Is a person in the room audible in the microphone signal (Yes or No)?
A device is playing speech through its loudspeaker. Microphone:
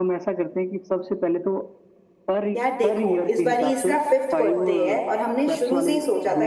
Yes